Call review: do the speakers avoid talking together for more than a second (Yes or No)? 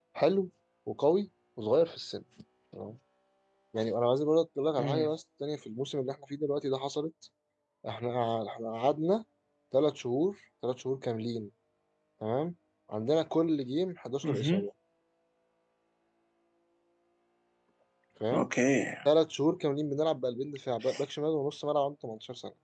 Yes